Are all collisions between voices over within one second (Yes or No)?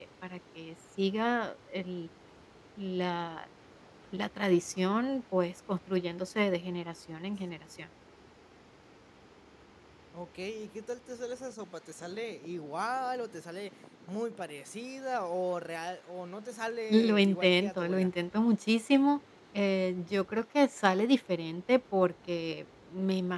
No